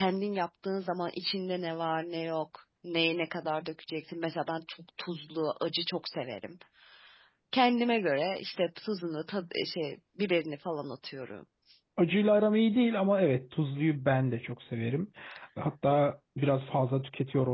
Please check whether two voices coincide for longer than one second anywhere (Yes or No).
No